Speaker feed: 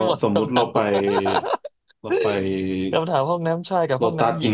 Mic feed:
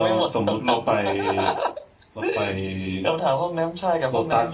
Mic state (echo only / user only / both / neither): echo only